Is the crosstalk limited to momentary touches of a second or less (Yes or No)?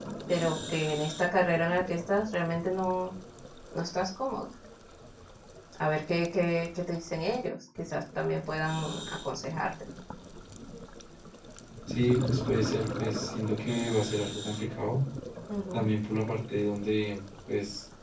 Yes